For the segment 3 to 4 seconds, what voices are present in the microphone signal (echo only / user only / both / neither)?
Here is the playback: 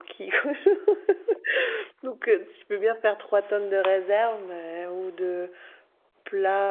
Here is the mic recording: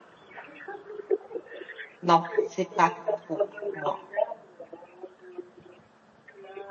both